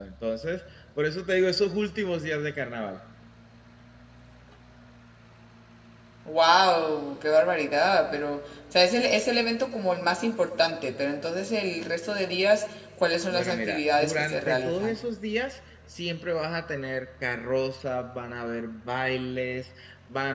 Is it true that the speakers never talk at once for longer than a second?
No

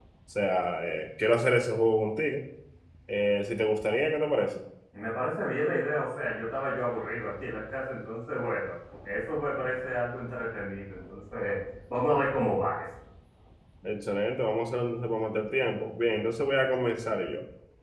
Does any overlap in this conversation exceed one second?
No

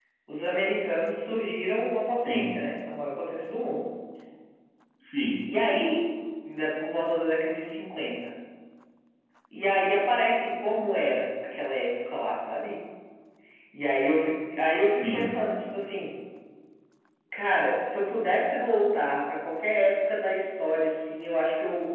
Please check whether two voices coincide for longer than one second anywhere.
No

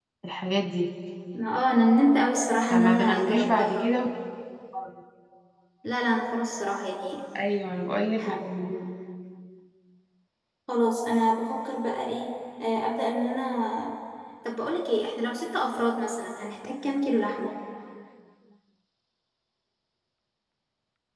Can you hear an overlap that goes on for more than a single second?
Yes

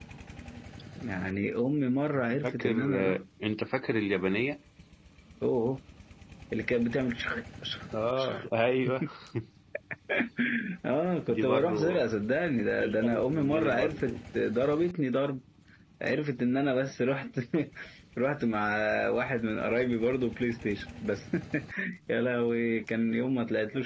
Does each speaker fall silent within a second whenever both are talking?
No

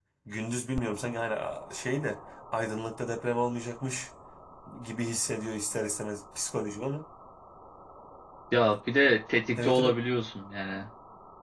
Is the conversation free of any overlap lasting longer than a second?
Yes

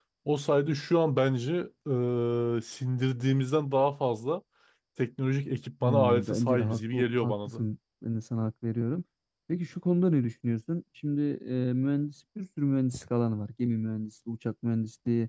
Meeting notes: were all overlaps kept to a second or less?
No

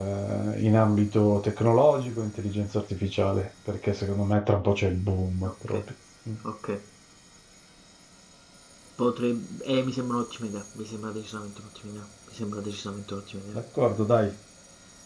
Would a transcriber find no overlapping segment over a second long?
Yes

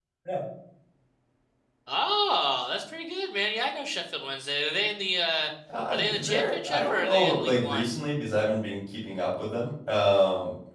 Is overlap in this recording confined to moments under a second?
No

